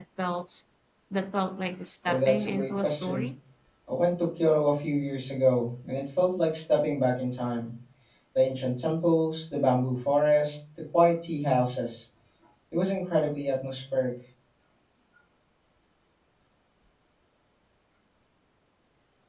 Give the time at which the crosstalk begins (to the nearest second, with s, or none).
2 s